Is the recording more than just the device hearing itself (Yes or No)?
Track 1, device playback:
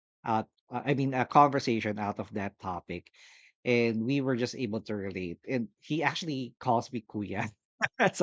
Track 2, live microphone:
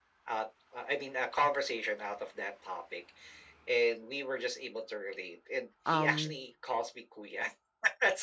Yes